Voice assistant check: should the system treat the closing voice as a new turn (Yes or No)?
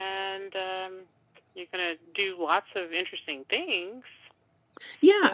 Yes